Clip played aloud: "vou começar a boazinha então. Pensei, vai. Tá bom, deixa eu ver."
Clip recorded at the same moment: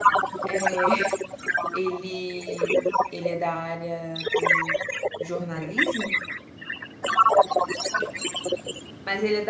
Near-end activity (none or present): present